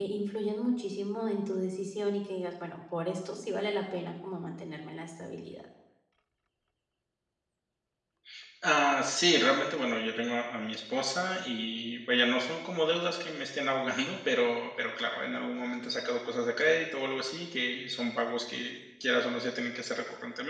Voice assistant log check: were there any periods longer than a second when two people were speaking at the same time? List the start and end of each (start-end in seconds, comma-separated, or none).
none